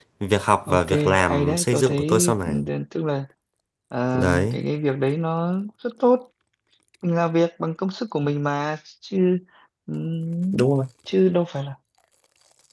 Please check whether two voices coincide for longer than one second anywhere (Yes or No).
Yes